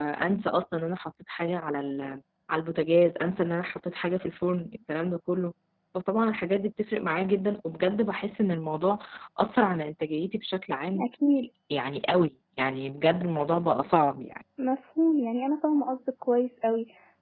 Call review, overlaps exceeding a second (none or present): none